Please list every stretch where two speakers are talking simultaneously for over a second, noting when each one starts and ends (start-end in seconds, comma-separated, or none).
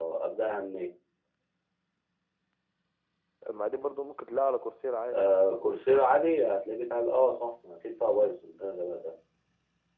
none